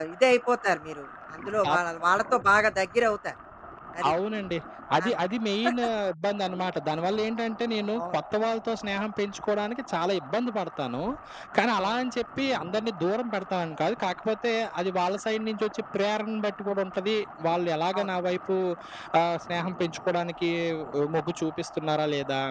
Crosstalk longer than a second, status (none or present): none